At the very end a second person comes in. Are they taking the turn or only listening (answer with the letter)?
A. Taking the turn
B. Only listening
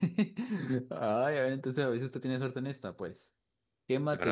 B